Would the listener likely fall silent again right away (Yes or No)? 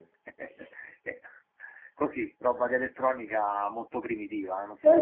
No